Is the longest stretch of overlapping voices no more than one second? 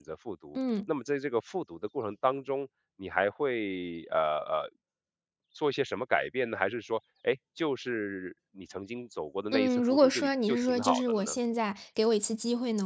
No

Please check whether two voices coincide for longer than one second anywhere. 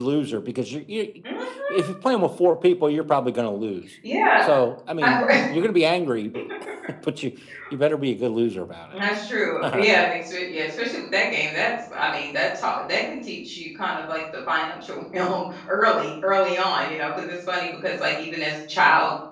No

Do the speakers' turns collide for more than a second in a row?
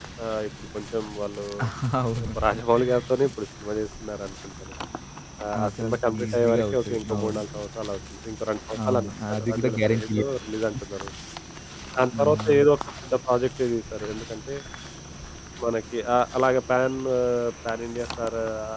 Yes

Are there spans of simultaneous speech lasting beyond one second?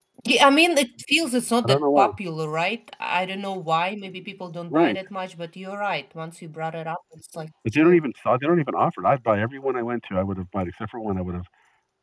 No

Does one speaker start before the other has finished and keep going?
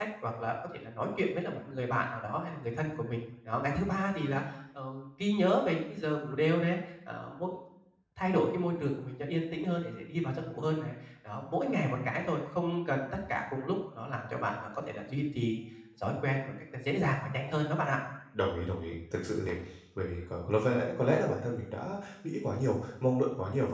No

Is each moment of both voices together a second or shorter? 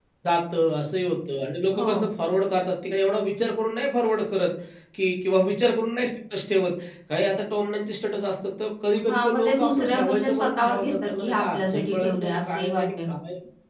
No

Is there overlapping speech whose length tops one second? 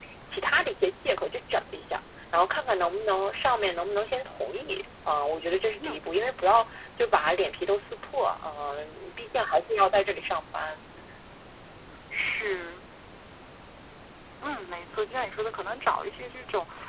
No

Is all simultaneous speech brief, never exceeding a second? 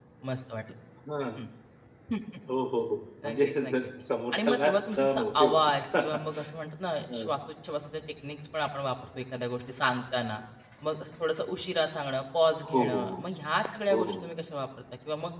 No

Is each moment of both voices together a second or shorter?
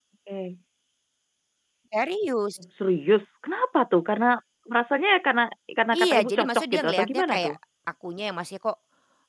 No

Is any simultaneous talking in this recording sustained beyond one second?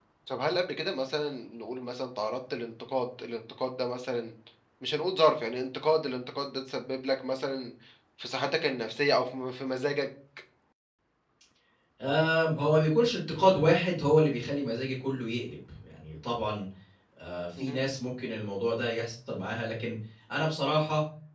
No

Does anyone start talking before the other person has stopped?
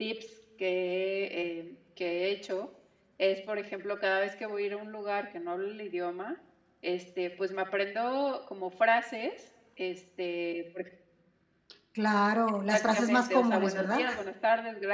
Yes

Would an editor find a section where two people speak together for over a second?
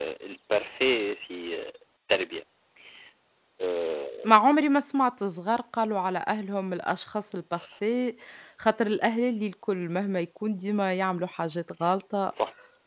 No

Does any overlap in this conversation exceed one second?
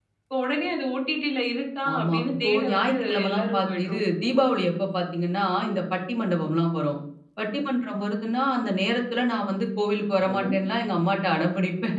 Yes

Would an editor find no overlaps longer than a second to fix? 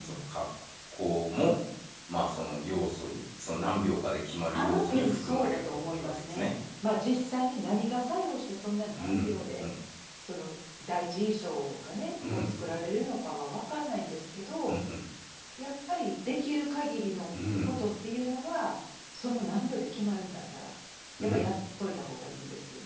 No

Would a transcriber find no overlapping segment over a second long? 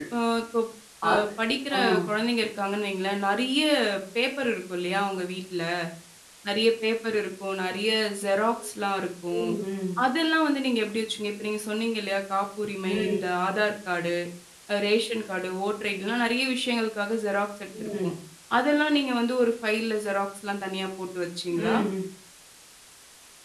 Yes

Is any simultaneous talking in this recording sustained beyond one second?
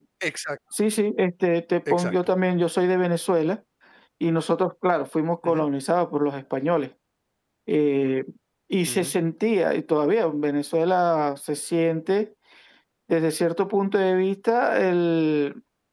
No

